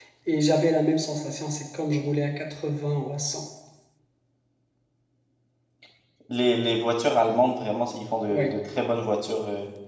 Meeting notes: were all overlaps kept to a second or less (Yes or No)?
Yes